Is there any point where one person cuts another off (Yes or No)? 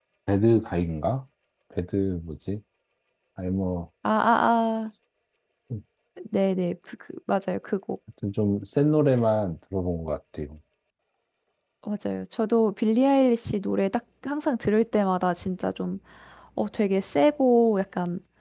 No